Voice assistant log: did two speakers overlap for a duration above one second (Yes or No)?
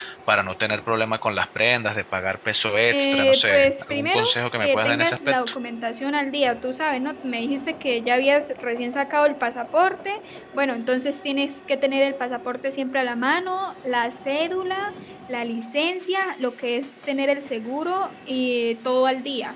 Yes